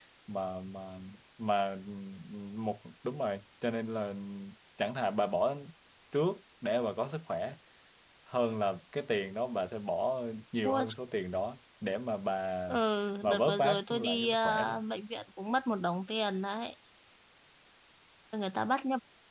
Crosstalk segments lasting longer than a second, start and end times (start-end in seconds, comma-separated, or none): 13.3-14.8